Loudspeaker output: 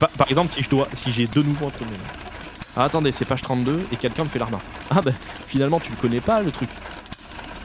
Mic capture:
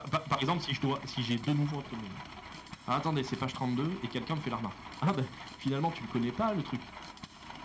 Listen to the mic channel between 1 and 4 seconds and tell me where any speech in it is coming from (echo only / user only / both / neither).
echo only